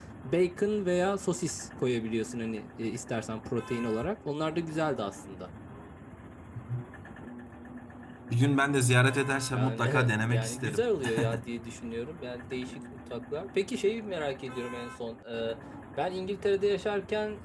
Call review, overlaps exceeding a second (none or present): present